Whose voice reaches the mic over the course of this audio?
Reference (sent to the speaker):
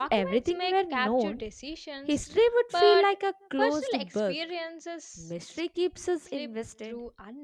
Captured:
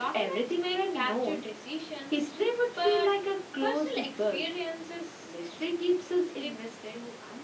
echo only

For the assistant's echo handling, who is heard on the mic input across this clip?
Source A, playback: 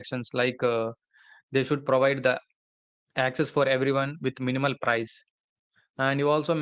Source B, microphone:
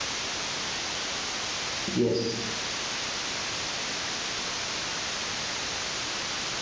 user only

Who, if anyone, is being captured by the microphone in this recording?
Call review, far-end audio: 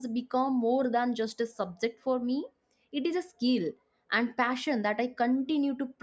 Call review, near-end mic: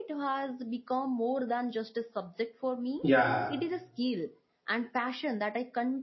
both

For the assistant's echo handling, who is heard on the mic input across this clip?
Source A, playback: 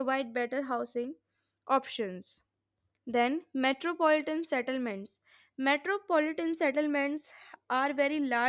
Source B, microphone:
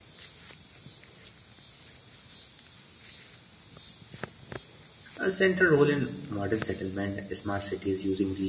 user only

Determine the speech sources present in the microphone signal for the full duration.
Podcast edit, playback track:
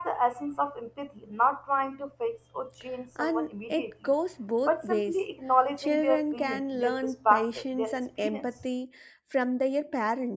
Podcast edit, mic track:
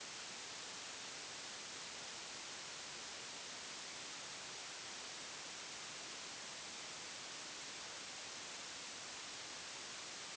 neither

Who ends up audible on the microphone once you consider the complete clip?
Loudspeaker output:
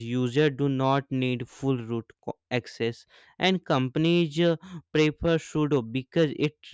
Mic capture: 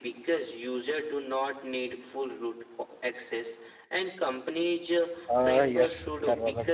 both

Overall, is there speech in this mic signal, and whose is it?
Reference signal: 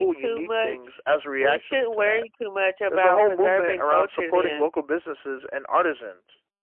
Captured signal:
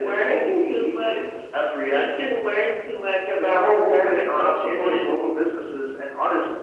echo only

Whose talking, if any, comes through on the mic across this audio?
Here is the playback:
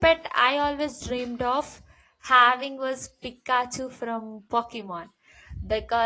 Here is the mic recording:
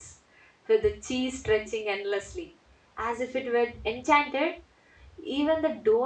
user only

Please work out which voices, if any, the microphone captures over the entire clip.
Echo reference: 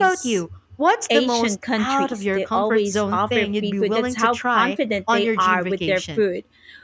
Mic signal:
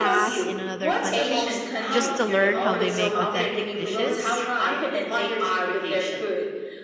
both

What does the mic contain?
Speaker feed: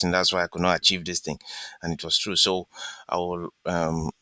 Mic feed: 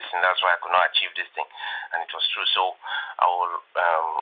echo only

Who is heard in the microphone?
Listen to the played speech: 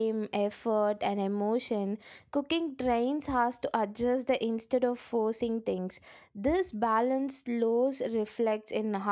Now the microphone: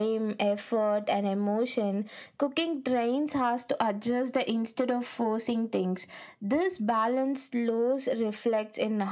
echo only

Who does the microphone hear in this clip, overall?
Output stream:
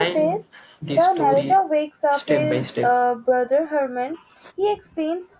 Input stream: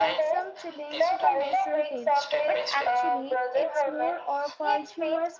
both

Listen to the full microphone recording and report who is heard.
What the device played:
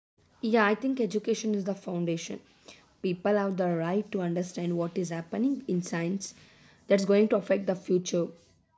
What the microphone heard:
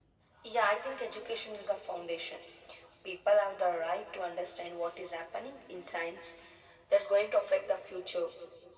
echo only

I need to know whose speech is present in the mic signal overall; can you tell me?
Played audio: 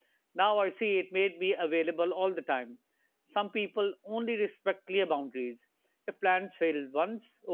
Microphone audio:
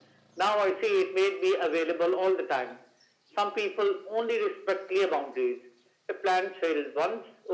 echo only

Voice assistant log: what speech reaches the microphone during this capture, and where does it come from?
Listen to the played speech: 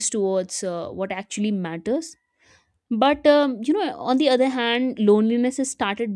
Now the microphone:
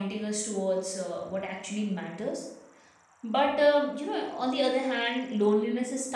echo only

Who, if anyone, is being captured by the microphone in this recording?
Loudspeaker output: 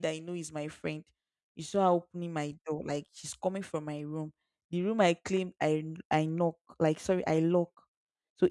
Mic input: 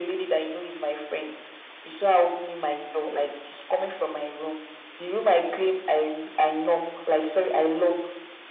echo only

